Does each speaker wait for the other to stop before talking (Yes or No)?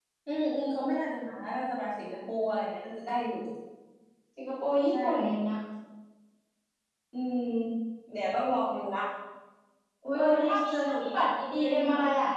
No